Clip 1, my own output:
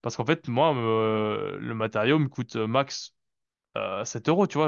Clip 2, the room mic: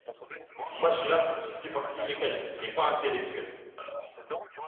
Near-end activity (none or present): present